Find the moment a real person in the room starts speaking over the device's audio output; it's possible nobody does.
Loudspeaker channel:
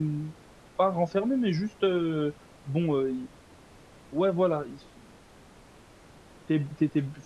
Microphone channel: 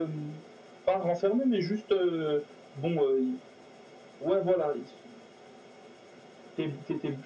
none

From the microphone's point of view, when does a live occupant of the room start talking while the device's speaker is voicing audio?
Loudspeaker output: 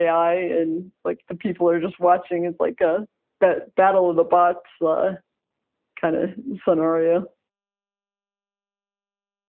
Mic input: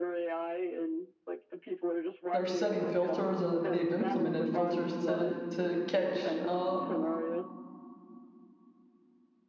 2 s

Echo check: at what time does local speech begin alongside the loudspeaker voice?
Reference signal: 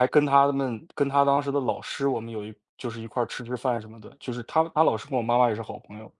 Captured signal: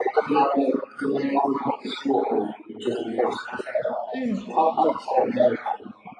4 s

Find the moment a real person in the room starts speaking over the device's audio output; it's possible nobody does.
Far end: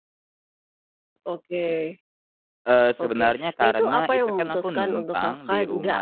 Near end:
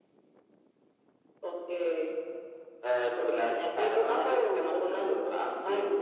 none

